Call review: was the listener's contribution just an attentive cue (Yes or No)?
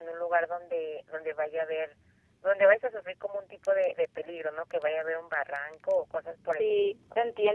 No